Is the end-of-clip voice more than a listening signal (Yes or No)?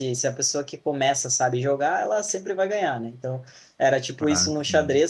No